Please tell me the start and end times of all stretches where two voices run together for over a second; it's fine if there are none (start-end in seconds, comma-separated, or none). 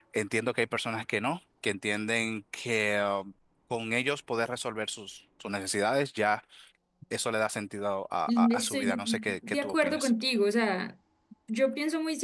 8.3-10.1